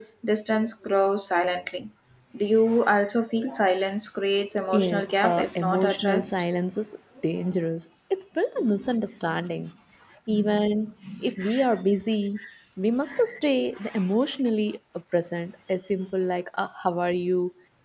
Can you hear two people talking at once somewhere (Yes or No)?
Yes